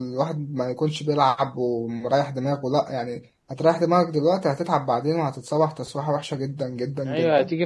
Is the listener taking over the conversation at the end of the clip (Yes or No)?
Yes